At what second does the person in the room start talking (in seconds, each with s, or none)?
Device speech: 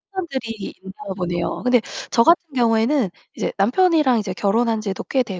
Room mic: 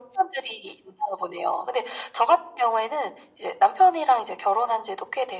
none